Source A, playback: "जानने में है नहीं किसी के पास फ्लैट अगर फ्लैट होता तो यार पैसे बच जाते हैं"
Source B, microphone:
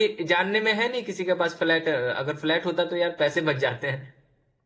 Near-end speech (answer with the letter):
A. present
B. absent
B